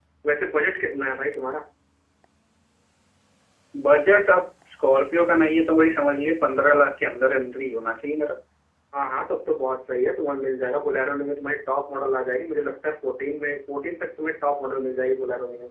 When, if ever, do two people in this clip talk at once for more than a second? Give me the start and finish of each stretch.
none

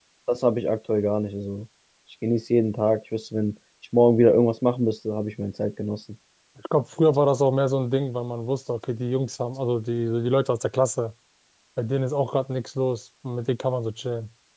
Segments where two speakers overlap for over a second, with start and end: none

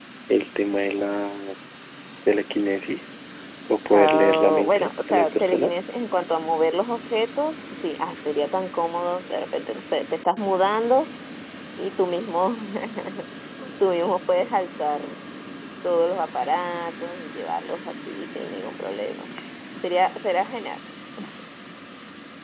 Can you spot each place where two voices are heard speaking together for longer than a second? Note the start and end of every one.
3.9-5.7

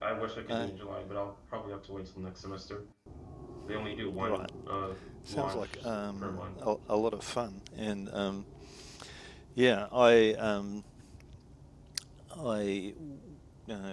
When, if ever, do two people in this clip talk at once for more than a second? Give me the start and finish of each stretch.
5.3-6.6

